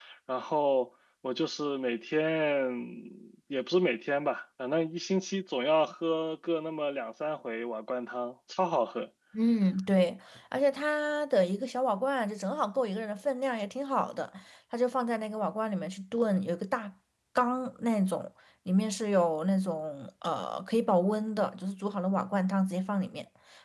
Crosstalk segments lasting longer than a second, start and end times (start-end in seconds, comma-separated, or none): none